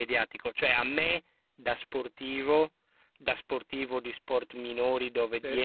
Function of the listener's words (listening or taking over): listening